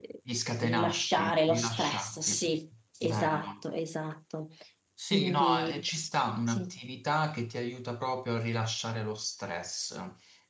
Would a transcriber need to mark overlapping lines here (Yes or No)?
Yes